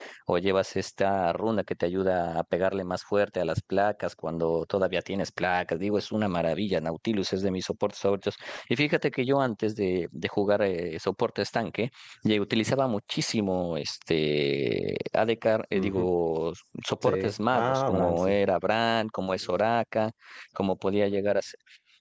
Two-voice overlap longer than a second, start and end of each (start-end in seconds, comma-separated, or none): 17.0-18.4